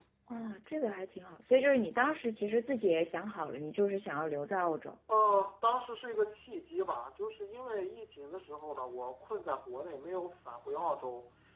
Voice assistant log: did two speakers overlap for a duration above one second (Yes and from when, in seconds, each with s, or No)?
No